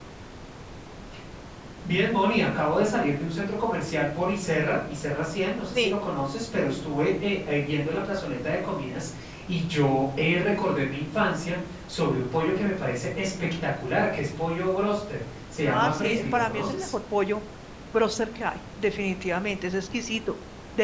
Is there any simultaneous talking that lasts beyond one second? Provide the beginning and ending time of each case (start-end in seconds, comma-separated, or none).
15.6-16.9